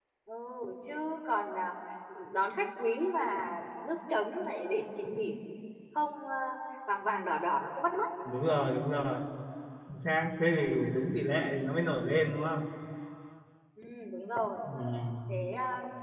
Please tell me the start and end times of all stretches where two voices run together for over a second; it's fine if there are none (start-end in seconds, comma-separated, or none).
none